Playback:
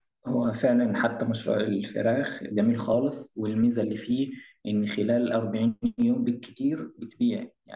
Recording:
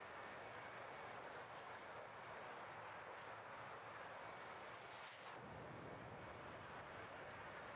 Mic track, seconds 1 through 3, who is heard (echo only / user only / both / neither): neither